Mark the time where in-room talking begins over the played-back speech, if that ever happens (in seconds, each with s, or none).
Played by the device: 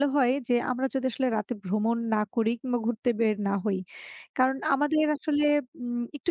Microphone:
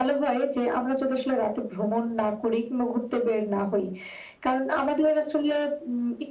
none